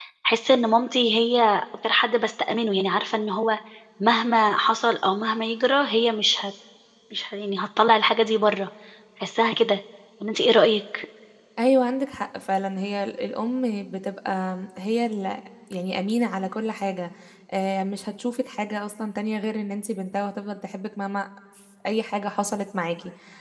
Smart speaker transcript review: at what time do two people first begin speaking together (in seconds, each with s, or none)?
none